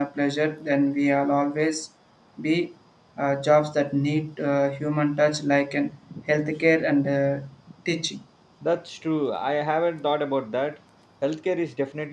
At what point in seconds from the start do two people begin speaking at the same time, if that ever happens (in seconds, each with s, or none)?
none